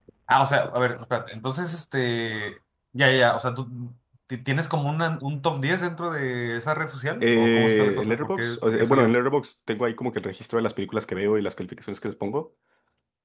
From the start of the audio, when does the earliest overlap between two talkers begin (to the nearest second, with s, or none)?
7 s